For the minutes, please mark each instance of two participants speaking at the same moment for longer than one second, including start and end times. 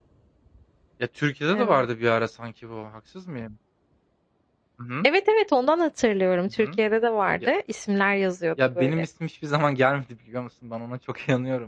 none

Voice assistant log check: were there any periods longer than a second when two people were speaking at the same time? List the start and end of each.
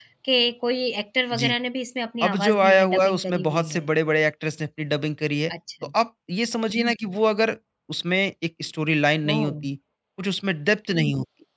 2.2-3.9

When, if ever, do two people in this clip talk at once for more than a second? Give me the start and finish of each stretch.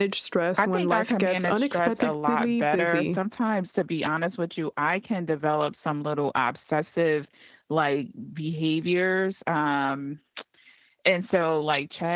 0.6-3.2

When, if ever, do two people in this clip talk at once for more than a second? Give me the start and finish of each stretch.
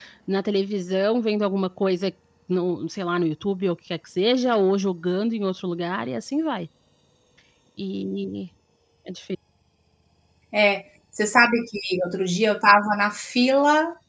none

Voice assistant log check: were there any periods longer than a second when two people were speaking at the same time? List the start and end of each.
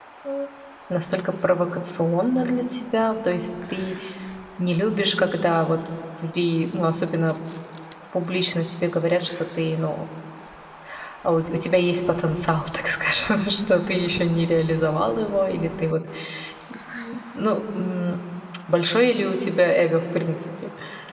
none

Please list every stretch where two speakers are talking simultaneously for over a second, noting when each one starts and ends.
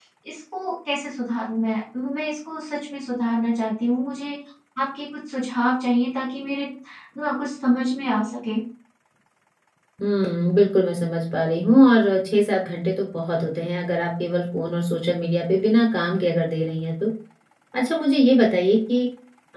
none

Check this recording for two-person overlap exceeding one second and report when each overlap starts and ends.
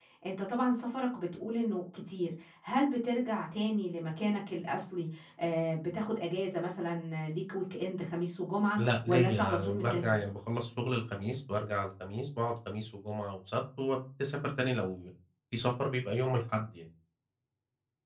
8.8-10.0

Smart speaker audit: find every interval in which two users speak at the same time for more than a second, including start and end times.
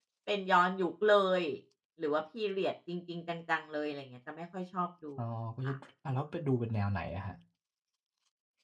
none

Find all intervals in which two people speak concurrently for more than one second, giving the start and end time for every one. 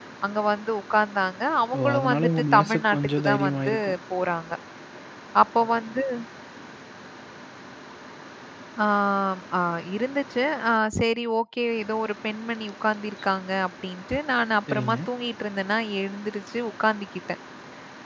1.8-3.8

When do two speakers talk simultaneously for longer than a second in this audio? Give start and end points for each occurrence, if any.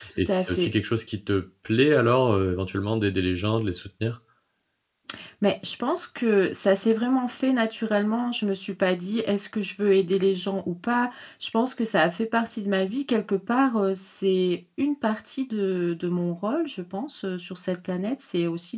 none

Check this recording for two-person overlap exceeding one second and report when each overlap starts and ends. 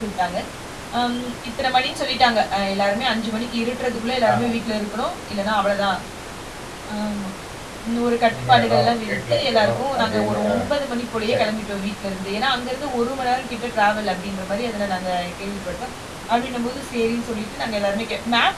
8.3-10.6

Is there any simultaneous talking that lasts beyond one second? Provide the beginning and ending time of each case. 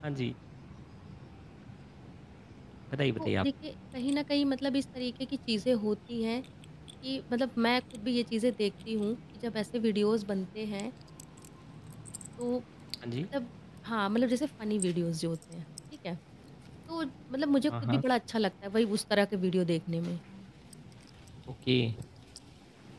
none

